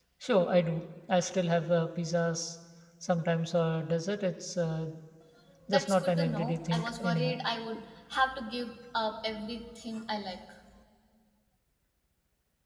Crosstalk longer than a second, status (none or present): present